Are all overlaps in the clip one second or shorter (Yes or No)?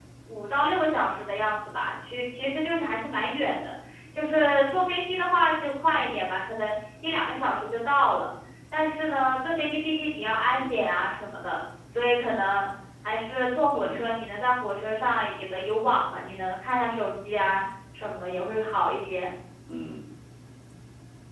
Yes